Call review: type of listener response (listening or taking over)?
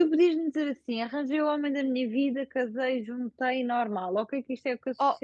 listening